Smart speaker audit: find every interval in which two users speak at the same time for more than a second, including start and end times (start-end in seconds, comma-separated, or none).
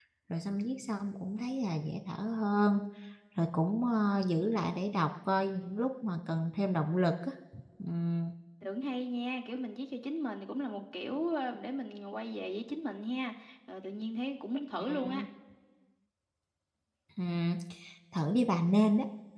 none